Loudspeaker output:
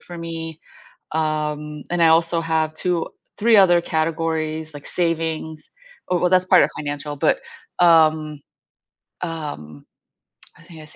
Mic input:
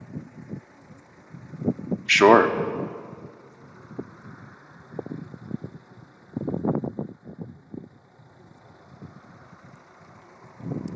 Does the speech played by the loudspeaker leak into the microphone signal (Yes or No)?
No